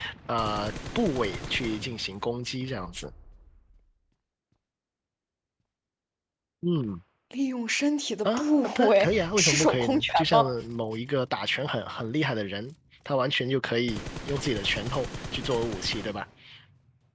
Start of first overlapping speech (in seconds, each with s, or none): 8.2 s